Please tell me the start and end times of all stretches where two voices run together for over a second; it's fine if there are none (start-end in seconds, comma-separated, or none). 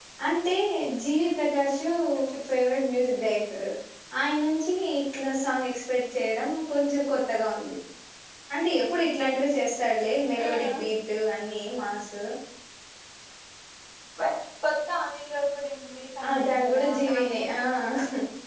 16.3-17.6